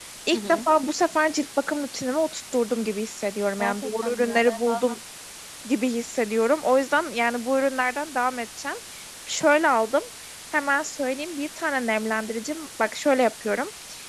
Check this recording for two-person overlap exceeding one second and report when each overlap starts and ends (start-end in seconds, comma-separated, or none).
3.6-5.0